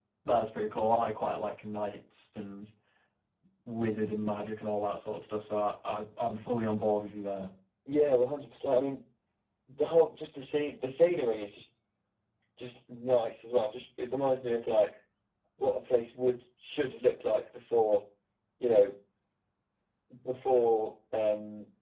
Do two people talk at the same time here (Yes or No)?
No